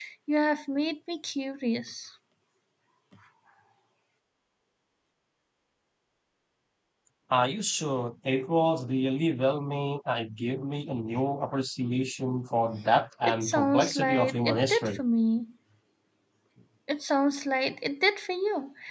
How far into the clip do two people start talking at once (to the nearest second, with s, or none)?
13 s